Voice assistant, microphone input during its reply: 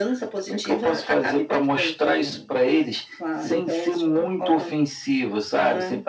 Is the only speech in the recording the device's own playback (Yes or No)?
Yes